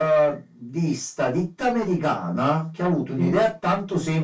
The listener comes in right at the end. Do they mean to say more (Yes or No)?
No